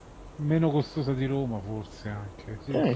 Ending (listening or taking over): taking over